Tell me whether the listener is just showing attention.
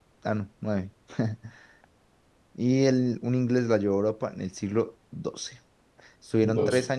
Yes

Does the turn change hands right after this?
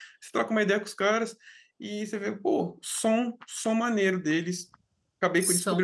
No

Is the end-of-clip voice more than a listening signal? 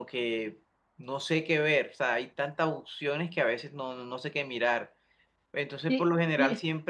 No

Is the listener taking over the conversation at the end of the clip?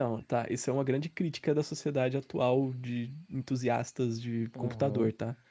Yes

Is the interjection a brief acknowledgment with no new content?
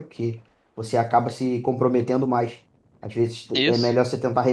Yes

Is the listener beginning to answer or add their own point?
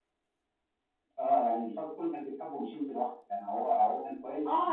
Yes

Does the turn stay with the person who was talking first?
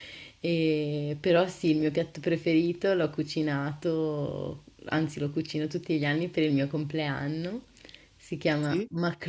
Yes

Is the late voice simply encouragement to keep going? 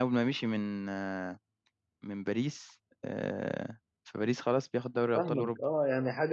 No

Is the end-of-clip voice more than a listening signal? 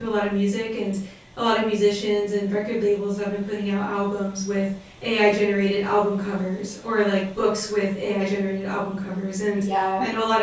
No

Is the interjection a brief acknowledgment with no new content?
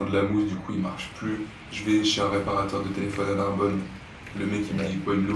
Yes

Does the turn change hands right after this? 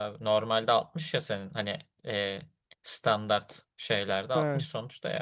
No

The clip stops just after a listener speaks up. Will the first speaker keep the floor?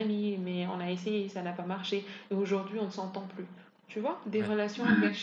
Yes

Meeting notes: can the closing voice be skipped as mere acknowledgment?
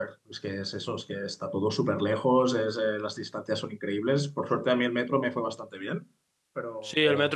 No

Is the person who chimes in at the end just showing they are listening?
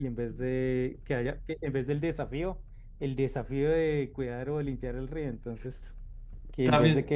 Yes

